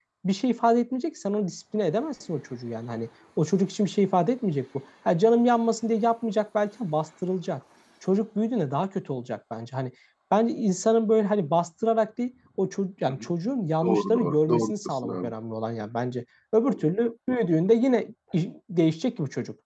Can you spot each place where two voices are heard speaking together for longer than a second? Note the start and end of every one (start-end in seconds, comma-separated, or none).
13.8-15.3